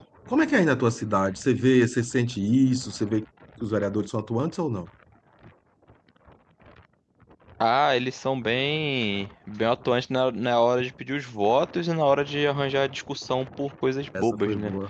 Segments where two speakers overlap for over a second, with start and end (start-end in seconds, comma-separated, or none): none